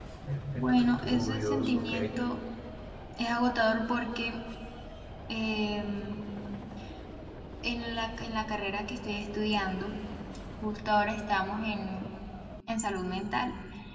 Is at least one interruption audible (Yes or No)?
Yes